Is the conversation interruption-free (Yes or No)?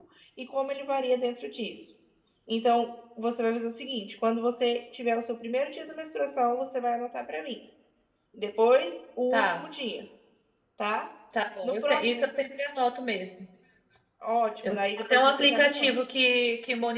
No